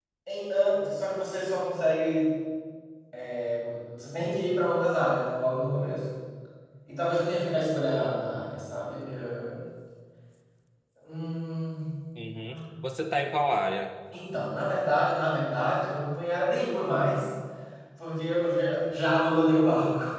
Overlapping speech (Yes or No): No